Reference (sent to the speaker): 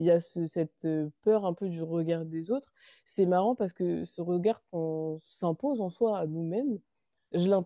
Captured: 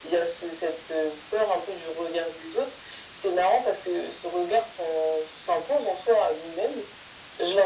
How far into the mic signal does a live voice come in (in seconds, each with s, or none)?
none